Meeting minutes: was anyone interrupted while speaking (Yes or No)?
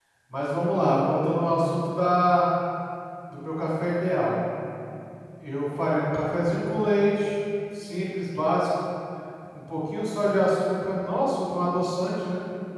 No